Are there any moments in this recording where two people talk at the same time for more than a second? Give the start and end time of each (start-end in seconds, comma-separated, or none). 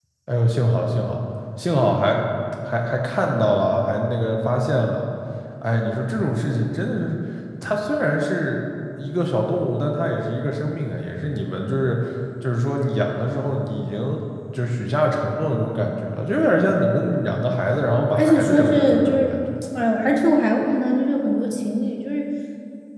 18.1-19.4